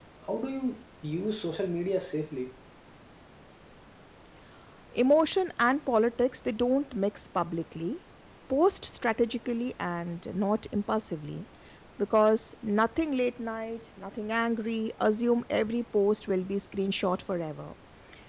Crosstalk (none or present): none